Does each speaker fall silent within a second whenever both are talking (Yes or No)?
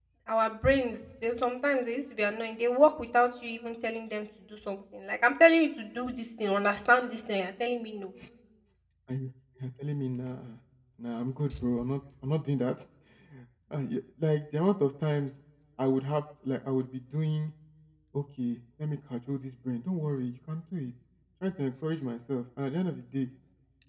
Yes